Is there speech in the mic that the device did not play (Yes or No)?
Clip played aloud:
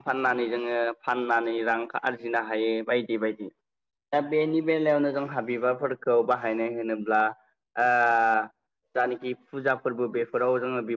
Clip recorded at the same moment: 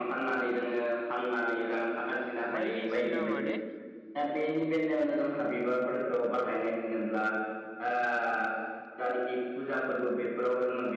Yes